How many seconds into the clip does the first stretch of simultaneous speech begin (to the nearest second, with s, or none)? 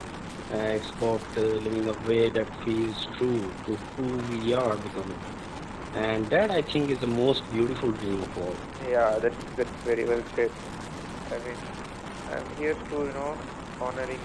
none